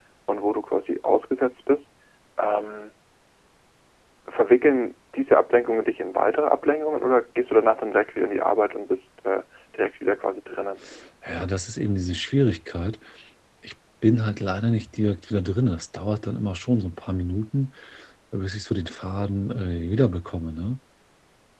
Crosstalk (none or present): none